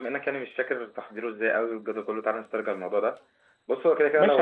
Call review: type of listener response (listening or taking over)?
taking over